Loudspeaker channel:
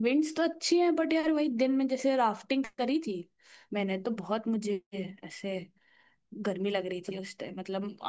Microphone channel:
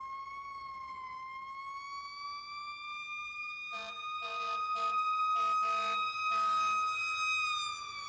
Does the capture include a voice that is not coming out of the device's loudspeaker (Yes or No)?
No